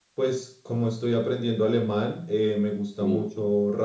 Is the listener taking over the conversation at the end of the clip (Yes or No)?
No